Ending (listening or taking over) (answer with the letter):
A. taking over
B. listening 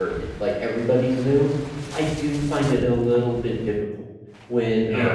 B